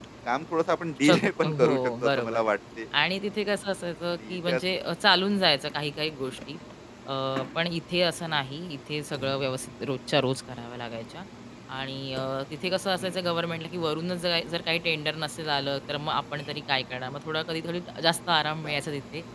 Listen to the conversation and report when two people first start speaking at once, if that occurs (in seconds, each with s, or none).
1.1 s